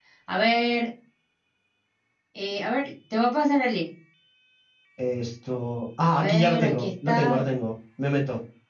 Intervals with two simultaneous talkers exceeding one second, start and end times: 6.0-7.4

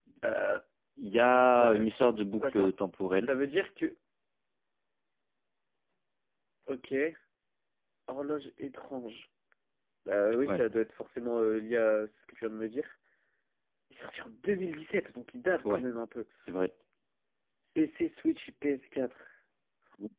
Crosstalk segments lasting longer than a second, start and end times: none

